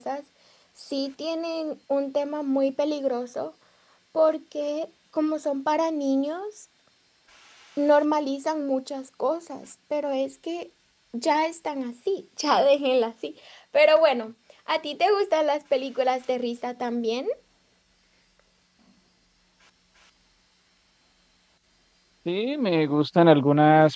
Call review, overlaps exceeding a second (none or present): none